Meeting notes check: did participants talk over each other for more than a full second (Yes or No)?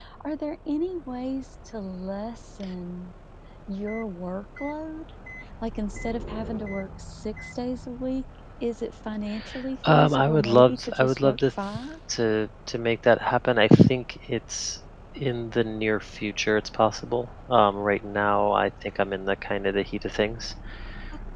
Yes